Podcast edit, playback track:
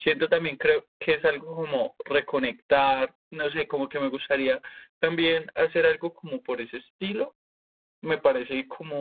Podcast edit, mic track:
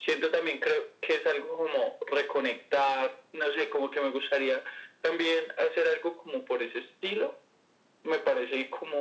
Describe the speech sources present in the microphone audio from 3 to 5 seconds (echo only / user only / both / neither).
echo only